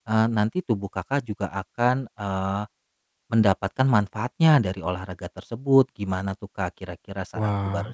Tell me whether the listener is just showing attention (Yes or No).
No